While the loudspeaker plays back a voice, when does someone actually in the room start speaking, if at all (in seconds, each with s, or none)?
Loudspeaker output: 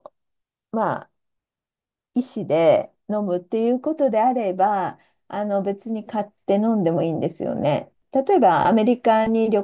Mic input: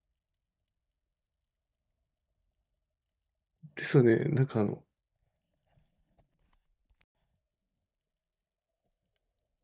3.8 s